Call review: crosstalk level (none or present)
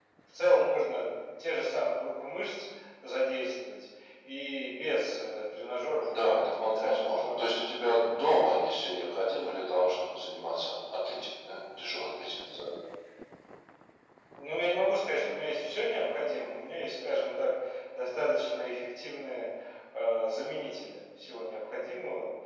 present